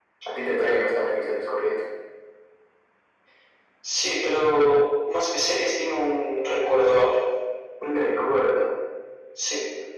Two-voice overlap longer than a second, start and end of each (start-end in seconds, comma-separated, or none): none